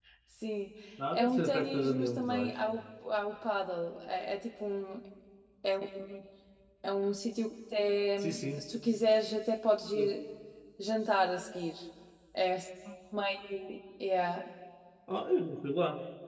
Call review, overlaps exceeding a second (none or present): present